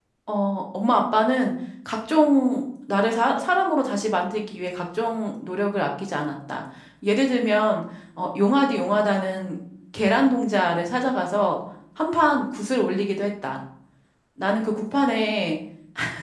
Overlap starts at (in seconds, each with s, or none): none